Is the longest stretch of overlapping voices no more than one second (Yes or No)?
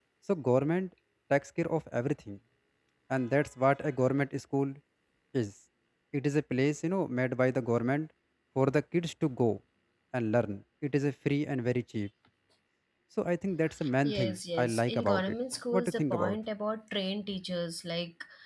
No